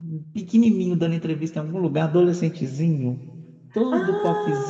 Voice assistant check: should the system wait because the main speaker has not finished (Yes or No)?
No